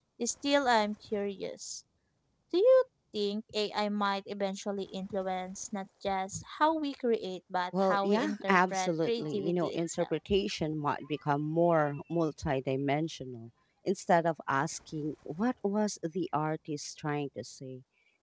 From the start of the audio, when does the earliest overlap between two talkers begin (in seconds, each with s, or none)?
7.7 s